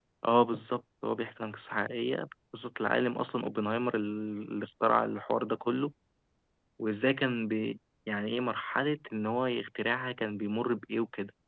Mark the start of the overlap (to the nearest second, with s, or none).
none